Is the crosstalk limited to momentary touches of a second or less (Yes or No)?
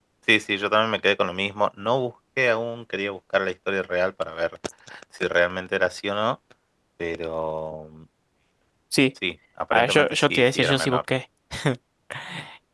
No